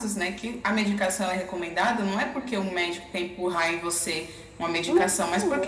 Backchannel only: Yes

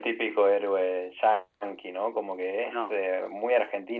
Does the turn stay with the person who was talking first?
Yes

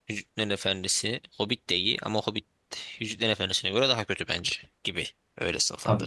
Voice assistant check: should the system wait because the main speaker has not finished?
No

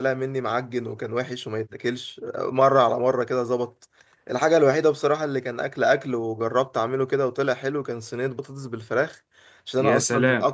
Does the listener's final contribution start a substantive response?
No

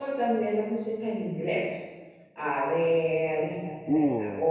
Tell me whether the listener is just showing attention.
Yes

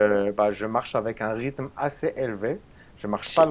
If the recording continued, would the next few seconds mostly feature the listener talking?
No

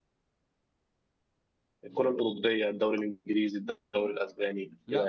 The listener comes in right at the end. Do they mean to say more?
Yes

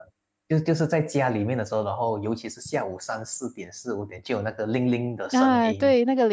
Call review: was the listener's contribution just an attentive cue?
No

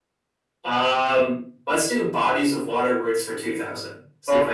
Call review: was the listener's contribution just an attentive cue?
No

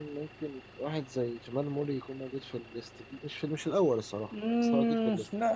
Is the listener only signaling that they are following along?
No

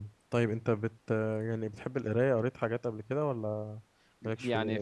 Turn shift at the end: Yes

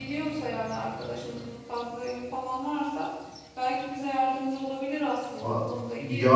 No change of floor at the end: No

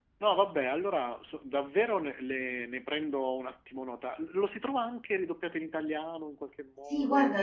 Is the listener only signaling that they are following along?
No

